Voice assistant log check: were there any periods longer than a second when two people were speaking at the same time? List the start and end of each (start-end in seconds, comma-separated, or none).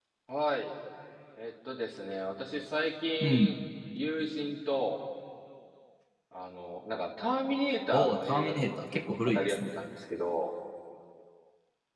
7.9-9.7